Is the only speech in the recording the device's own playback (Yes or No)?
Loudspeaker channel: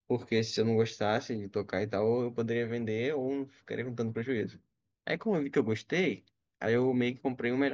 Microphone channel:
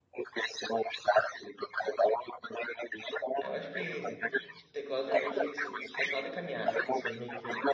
No